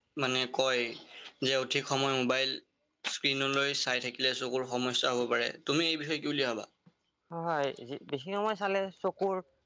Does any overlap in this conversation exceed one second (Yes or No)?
No